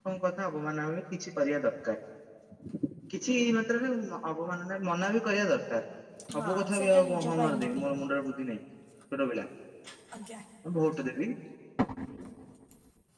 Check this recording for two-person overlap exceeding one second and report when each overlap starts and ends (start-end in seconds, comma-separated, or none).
6.4-7.8